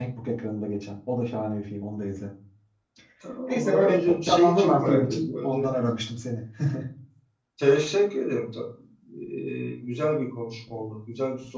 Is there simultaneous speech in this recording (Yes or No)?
Yes